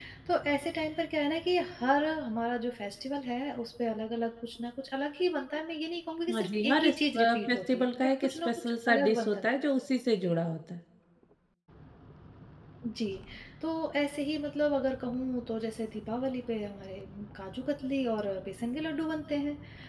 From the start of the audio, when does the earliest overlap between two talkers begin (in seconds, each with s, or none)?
6.3 s